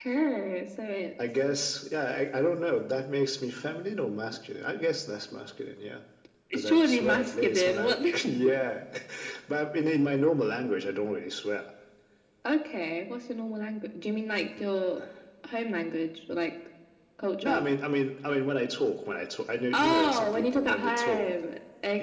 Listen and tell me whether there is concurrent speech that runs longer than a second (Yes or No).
Yes